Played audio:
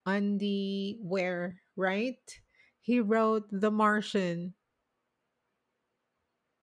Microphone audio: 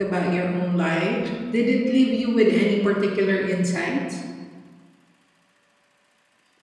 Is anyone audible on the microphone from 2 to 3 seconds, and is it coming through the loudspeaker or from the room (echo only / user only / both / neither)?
user only